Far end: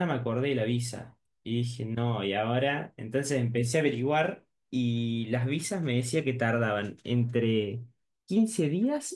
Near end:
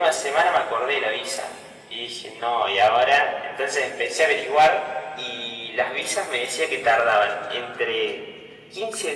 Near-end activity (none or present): none